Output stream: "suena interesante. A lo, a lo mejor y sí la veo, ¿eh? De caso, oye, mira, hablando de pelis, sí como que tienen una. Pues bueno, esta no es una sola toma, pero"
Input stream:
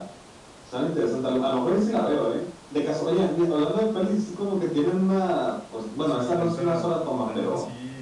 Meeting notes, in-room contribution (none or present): present